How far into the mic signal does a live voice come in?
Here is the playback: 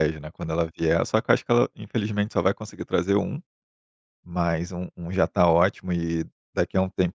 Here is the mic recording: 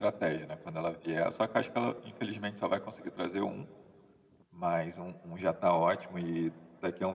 none

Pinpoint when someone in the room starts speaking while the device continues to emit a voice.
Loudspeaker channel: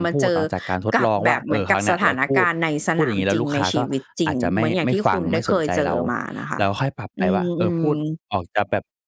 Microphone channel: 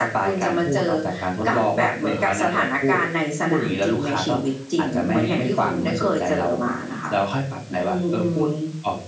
none

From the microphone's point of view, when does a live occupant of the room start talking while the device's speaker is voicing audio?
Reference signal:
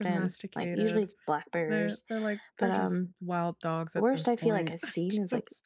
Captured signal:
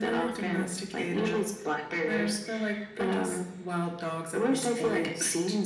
none

